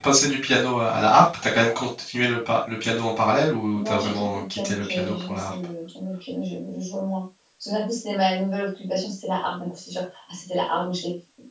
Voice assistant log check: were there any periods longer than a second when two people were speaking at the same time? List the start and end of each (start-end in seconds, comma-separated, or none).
3.7-5.5